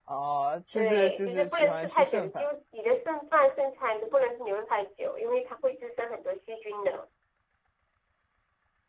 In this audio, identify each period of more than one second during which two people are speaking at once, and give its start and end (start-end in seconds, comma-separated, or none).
0.8-2.5